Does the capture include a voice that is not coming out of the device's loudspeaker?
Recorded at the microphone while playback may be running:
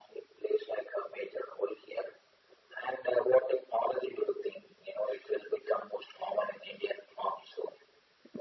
No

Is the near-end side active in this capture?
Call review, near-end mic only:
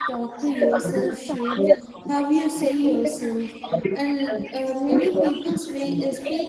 Yes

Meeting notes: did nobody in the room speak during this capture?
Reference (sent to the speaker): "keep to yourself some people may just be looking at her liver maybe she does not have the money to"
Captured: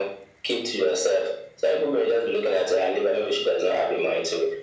Yes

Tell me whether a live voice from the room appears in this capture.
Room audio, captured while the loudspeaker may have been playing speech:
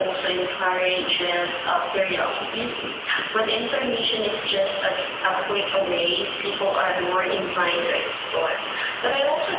No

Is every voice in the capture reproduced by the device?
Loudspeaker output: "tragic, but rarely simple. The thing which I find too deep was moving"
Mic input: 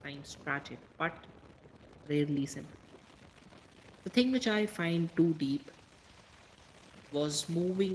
Yes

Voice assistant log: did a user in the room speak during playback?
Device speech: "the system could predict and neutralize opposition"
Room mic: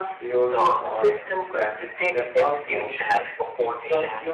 Yes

